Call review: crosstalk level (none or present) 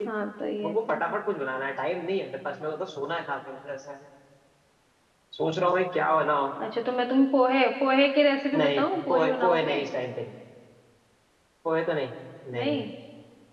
present